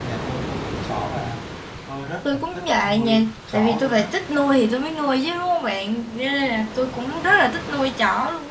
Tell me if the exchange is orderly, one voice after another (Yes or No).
No